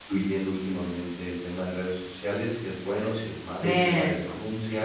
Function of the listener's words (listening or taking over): listening